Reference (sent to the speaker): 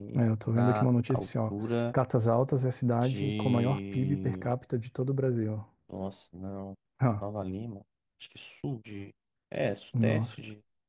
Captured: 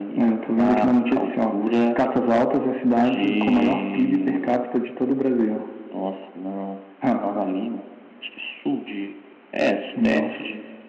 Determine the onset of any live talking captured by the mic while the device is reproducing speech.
none

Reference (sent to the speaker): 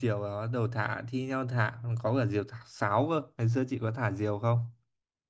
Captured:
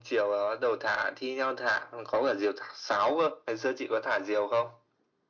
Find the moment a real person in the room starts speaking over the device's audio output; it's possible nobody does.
none

